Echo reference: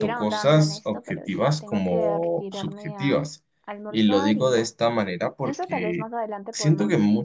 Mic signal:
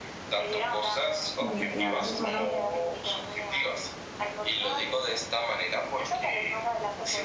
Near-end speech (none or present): present